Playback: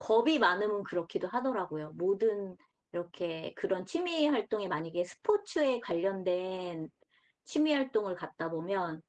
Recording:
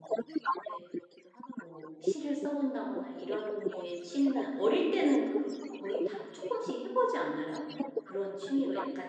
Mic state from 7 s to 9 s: both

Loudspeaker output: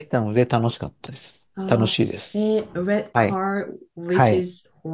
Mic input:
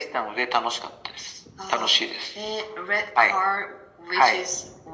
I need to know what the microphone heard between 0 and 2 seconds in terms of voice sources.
echo only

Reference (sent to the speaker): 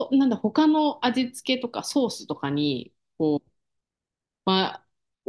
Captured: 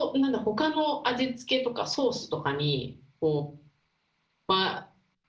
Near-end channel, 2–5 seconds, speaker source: echo only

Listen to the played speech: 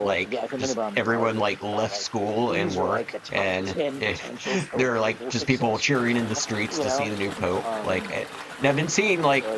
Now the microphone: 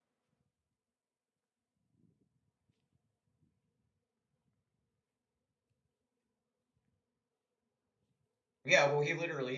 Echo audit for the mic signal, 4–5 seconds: neither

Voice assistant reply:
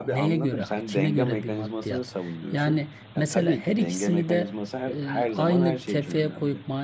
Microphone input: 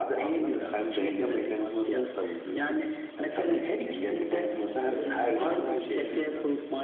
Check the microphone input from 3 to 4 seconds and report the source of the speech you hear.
echo only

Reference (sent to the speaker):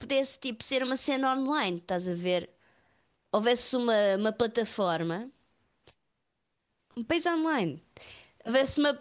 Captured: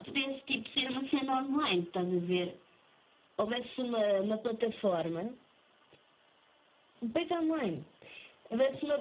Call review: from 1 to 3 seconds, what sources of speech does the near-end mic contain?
echo only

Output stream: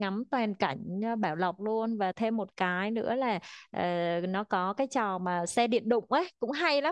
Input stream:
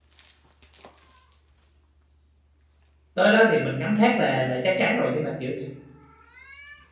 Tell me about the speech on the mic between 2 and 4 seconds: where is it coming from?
user only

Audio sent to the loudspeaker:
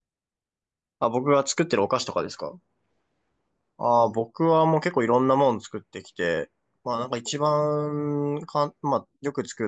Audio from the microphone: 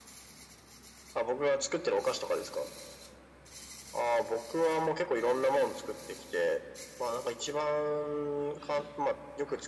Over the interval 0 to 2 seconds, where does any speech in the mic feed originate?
echo only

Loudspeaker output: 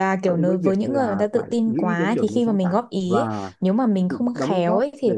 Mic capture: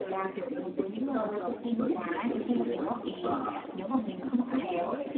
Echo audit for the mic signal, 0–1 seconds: echo only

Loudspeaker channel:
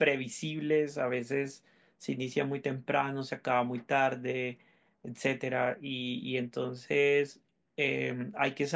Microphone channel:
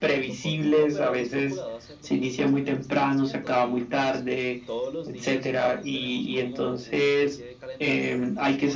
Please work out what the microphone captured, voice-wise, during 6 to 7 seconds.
both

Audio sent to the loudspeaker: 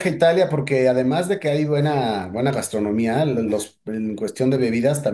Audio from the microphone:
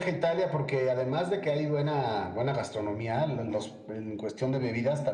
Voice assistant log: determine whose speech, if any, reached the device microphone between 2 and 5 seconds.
echo only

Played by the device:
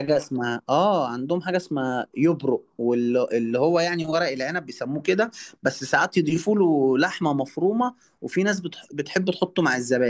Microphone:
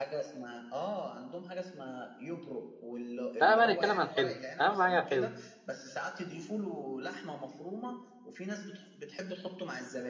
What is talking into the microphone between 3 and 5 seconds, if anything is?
both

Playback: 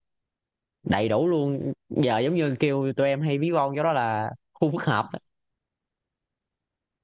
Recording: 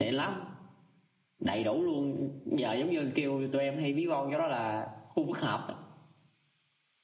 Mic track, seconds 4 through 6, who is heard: echo only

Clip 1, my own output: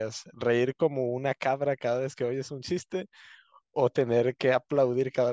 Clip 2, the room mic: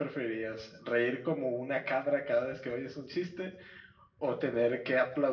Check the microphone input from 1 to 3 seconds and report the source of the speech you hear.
echo only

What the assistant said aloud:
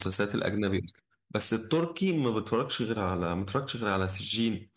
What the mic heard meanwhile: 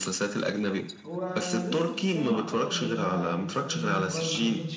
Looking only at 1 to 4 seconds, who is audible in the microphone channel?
both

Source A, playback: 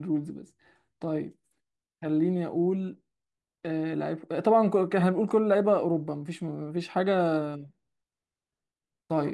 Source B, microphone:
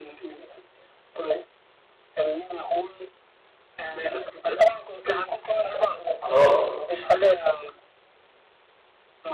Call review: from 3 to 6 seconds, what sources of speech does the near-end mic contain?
echo only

